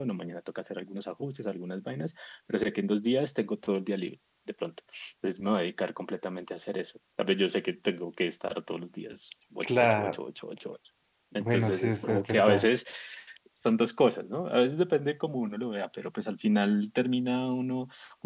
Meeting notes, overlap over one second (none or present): present